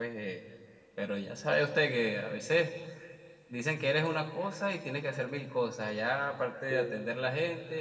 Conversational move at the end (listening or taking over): listening